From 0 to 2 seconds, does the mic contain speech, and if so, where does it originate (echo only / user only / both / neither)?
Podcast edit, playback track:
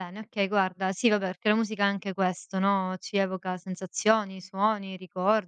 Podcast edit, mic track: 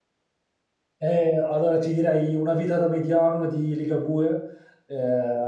user only